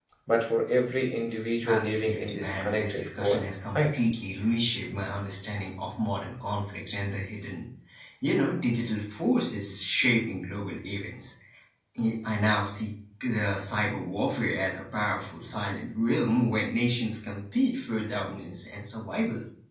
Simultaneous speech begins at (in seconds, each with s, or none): 1.6 s